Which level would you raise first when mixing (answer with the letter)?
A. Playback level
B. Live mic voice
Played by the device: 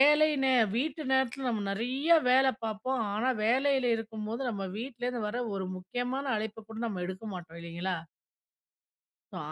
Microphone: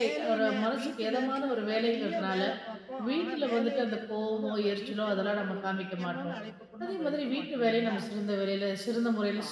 A